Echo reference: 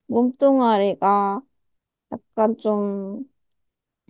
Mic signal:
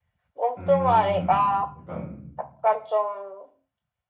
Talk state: both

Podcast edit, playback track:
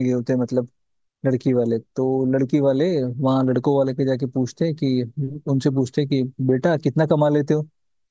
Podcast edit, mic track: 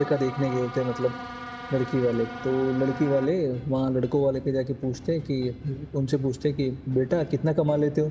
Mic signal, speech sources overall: echo only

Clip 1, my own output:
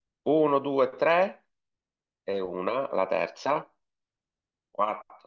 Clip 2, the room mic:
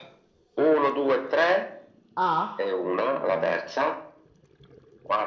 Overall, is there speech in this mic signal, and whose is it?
both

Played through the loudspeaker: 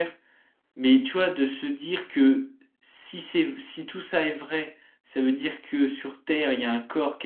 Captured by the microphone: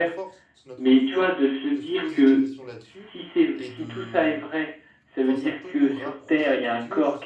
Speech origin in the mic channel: both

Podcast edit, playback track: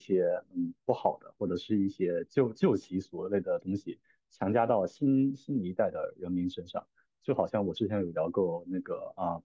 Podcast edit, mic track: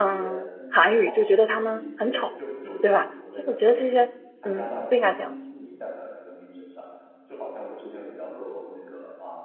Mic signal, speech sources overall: both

